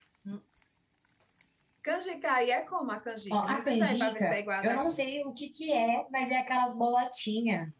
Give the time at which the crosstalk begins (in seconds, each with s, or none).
3.3 s